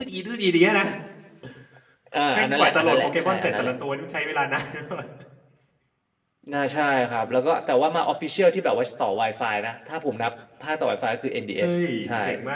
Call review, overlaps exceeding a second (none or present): present